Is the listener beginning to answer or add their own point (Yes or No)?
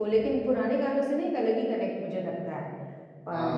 No